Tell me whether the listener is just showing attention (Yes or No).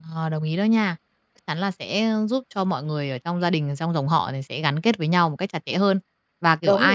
Yes